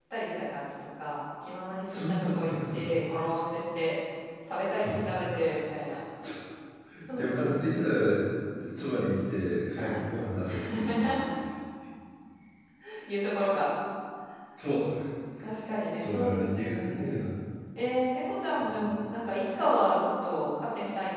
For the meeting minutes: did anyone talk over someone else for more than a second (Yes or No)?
Yes